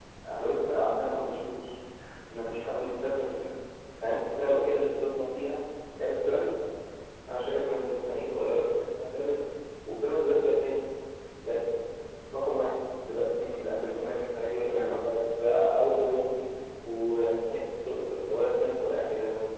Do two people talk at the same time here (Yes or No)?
Yes